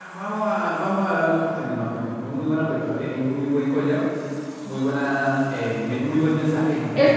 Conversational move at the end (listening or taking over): taking over